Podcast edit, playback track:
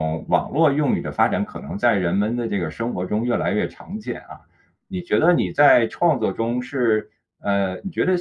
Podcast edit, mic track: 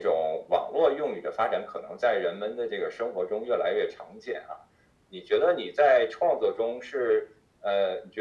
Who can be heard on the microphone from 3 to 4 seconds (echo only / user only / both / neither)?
echo only